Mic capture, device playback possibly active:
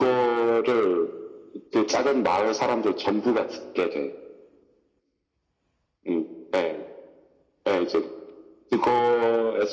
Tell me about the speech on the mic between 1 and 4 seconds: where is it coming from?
echo only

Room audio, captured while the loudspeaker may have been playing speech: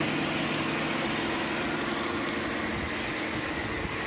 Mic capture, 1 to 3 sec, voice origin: neither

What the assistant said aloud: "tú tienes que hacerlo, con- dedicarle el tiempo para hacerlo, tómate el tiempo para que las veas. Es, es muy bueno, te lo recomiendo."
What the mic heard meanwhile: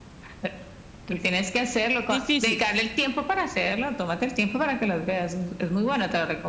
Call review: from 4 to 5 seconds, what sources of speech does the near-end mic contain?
echo only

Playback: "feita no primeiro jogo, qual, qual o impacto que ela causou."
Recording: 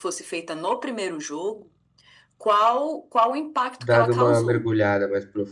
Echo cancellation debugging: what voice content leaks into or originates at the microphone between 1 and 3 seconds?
echo only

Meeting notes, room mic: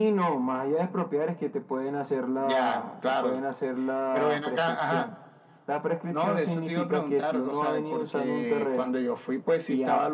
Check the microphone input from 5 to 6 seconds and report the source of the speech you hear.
echo only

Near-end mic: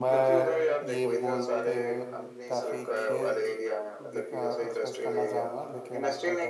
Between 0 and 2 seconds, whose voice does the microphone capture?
both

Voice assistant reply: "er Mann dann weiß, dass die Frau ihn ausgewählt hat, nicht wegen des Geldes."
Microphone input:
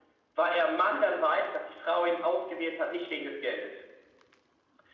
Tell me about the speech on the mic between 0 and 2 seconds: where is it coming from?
echo only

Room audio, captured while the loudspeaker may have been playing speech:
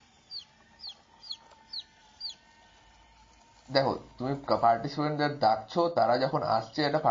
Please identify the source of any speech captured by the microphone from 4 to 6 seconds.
user only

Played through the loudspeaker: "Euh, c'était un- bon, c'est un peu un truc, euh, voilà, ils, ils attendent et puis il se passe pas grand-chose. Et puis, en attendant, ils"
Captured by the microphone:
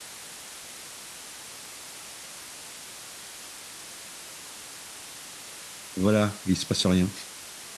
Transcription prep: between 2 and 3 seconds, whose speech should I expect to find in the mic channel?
neither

